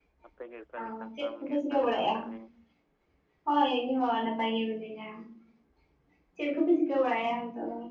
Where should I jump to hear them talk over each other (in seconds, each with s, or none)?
0.8 s